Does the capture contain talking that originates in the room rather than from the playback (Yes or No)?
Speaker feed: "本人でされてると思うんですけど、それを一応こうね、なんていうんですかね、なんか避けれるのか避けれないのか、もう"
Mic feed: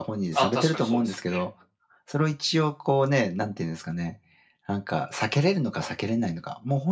Yes